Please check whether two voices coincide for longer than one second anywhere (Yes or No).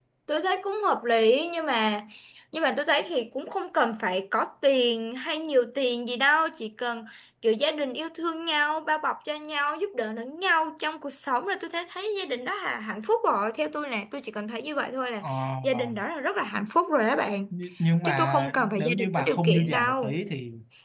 Yes